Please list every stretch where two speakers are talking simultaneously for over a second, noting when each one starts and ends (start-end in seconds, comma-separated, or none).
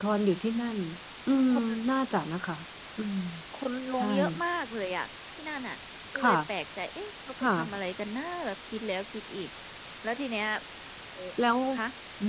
none